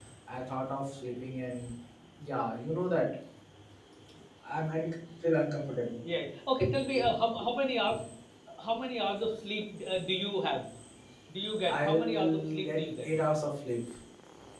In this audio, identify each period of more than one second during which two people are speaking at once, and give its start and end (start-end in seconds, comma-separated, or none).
11.7-13.1